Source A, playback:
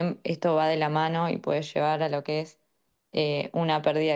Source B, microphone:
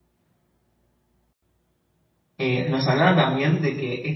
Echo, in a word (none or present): none